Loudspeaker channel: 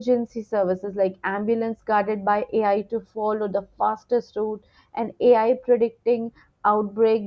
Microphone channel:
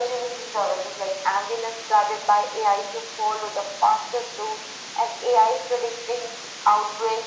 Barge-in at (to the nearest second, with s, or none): none